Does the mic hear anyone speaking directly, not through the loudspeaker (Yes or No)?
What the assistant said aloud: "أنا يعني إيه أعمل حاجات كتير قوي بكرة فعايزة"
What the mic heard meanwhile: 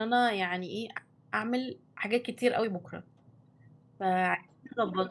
No